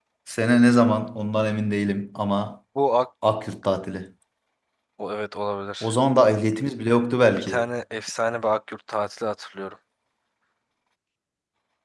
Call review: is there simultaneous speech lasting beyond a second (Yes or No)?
No